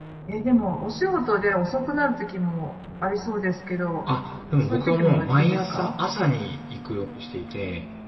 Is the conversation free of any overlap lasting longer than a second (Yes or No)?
No